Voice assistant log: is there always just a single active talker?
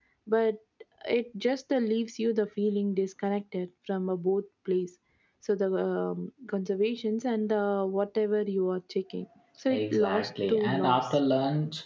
No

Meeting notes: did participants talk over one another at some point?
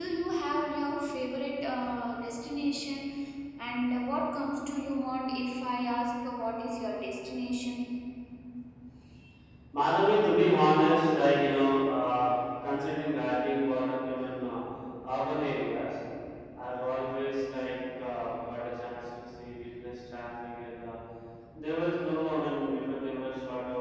No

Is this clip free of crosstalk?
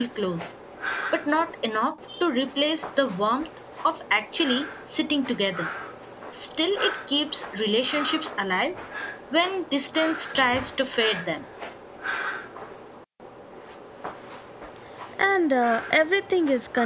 Yes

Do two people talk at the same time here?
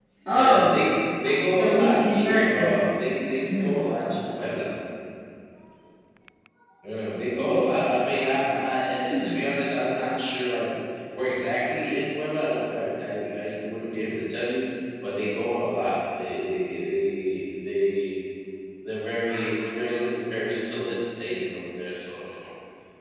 Yes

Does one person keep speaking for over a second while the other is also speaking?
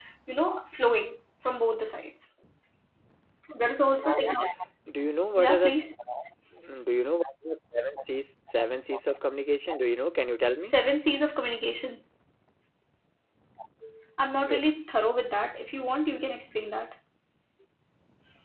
No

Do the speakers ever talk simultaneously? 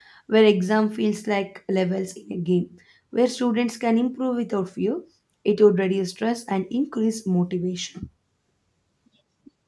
No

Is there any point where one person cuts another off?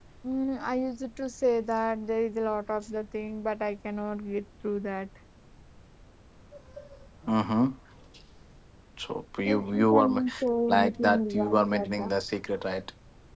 Yes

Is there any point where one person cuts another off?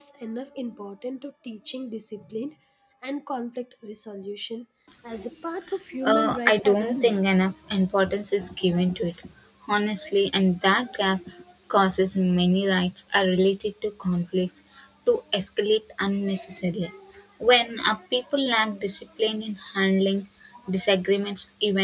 Yes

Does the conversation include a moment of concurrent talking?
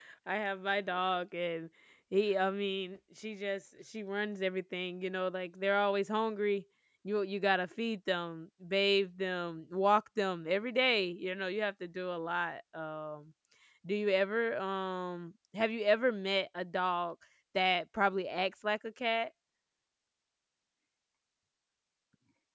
No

